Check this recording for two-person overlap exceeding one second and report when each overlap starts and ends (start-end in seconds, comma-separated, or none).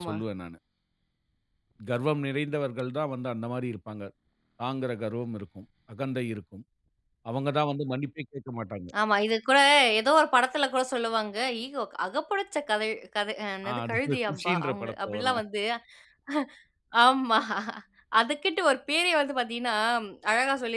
13.7-15.4